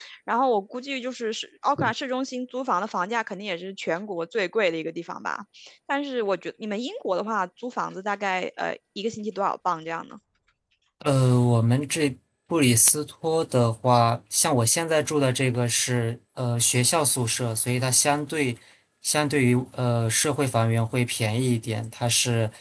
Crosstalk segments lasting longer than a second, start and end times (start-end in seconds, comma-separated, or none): none